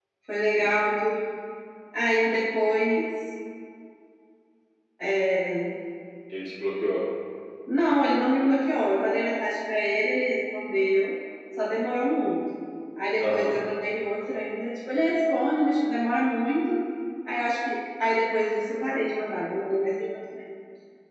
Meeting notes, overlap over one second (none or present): none